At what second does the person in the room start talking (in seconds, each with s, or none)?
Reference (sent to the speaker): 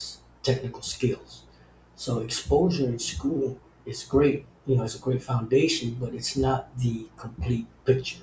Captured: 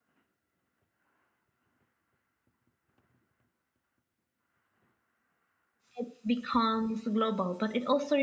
5.9 s